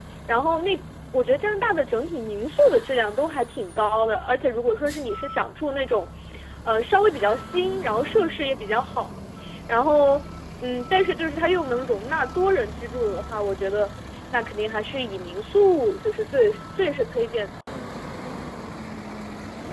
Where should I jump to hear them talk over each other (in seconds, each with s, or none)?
none